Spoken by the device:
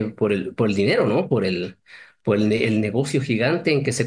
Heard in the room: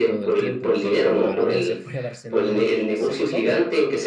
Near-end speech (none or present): present